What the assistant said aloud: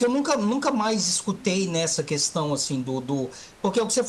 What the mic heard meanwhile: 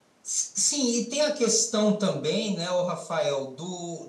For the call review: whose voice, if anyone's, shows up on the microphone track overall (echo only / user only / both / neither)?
user only